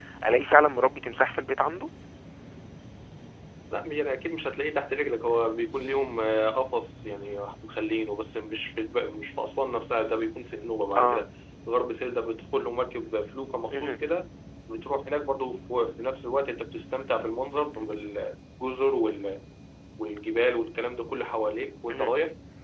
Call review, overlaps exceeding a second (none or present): none